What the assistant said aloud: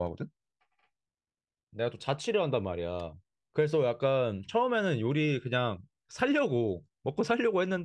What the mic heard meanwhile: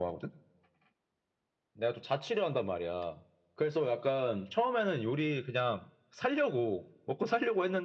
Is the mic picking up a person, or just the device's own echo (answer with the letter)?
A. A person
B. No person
B